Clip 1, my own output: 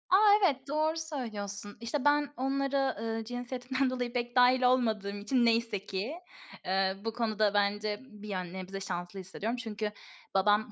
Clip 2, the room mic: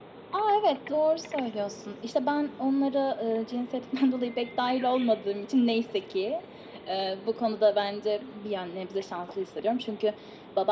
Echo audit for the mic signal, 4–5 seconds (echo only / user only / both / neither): echo only